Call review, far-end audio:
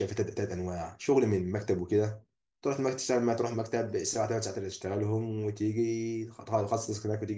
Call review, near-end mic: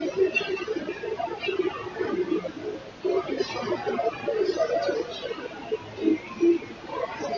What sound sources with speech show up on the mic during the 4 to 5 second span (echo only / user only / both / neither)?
echo only